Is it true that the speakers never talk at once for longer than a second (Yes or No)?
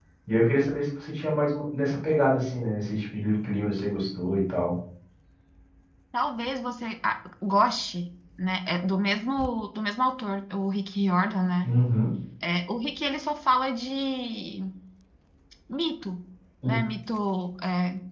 Yes